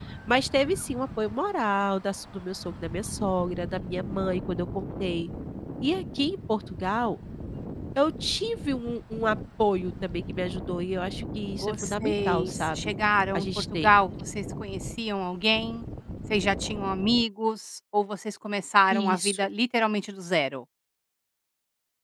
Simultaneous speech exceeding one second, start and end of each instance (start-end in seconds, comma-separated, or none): 11.6-12.9